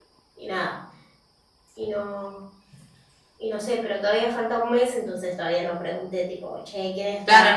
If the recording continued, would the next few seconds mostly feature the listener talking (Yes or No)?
Yes